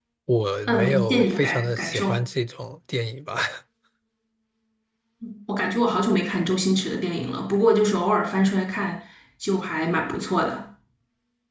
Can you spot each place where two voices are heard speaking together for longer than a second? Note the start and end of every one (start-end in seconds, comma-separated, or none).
0.7-2.2